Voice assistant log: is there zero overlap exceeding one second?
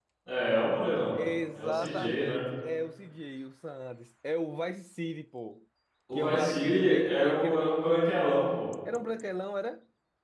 No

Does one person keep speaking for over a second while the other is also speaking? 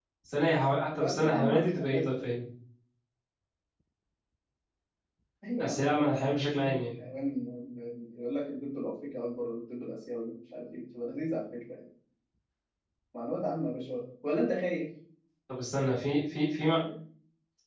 Yes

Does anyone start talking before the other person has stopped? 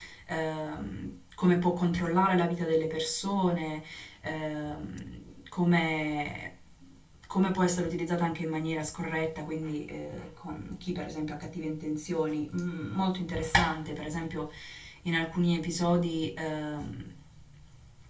No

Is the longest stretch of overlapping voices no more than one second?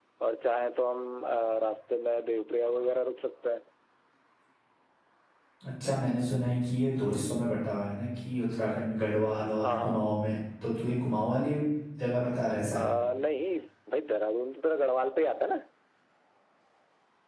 Yes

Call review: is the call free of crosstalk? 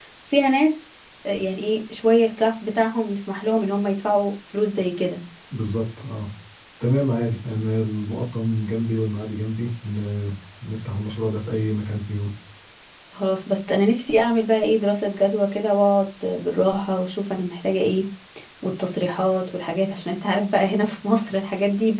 Yes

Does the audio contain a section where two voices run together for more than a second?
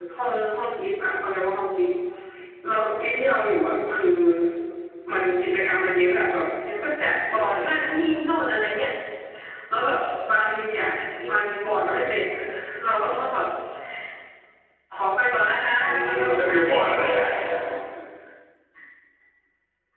Yes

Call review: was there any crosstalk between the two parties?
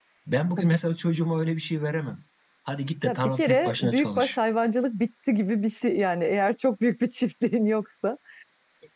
Yes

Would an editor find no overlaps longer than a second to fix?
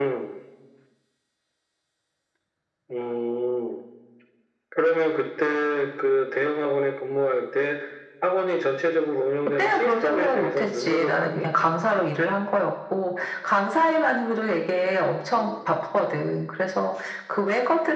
No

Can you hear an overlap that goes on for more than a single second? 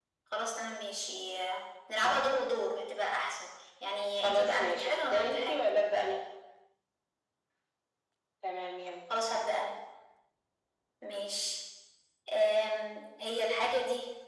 Yes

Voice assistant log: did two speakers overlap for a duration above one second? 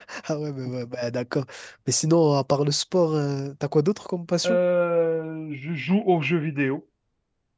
No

